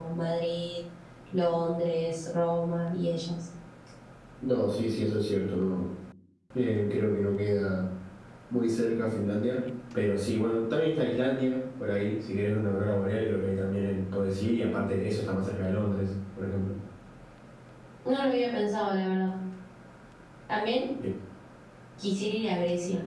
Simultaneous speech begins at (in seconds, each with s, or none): none